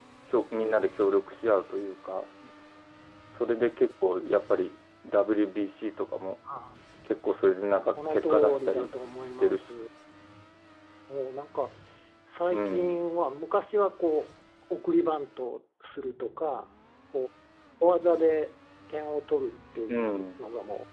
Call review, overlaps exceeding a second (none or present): present